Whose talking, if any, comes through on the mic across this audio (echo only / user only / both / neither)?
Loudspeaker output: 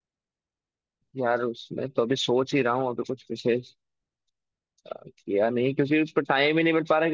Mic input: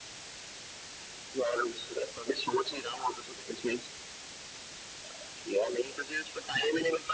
echo only